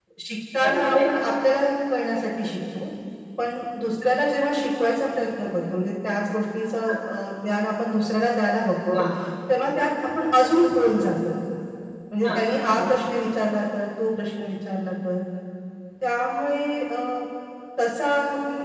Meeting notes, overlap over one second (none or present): none